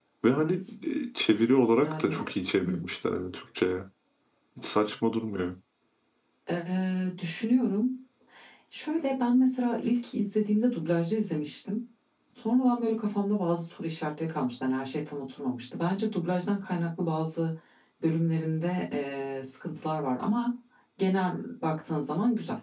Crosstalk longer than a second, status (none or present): none